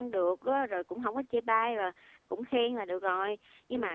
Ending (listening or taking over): listening